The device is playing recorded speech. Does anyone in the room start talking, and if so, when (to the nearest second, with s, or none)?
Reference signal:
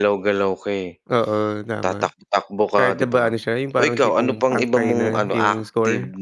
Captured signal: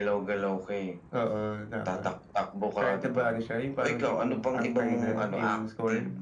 none